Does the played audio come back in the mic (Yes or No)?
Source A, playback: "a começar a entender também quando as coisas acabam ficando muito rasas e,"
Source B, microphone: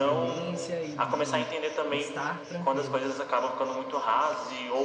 Yes